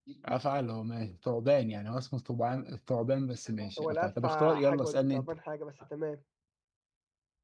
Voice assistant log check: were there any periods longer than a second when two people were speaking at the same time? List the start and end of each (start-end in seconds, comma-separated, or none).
3.8-5.3